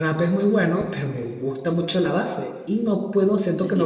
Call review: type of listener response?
taking over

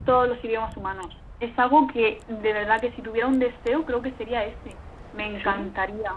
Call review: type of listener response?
listening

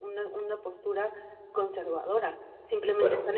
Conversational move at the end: listening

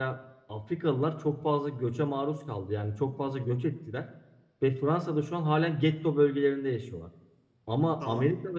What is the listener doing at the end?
listening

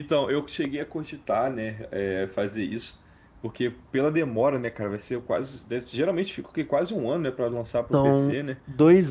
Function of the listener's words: taking over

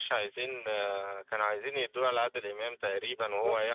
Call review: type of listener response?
taking over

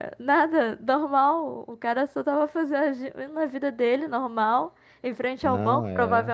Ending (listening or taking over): listening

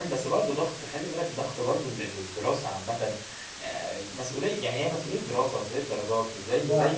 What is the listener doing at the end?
listening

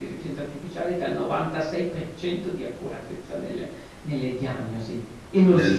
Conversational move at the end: listening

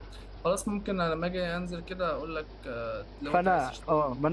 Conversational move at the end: taking over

